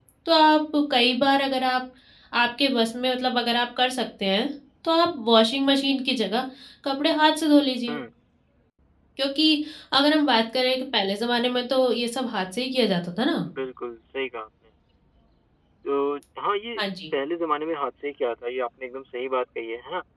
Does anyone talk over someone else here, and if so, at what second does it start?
none

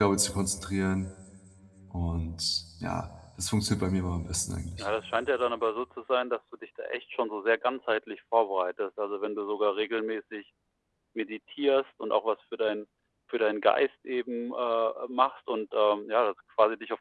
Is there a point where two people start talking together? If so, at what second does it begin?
none

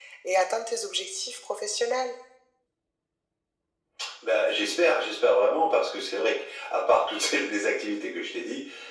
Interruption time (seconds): none

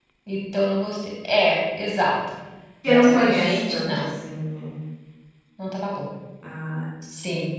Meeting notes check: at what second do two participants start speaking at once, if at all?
2.9 s

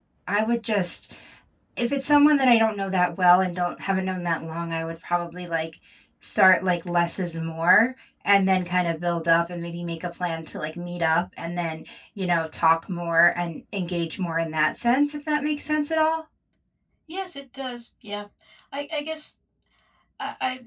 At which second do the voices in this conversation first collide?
none

